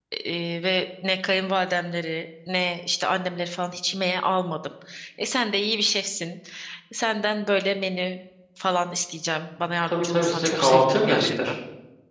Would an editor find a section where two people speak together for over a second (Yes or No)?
Yes